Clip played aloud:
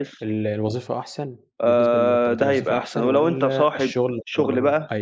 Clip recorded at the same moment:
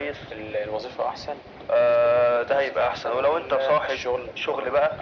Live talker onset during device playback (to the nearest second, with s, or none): none